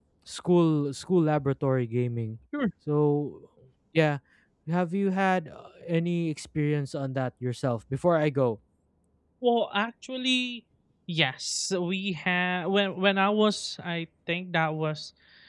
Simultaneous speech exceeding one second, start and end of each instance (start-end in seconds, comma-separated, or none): none